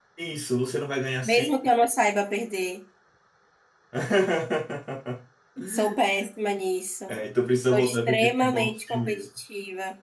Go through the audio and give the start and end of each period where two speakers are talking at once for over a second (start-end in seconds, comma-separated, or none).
7.7-9.3